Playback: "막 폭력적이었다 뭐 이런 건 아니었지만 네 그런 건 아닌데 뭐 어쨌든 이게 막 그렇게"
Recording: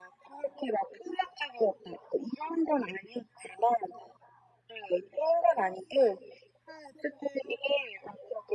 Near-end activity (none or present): none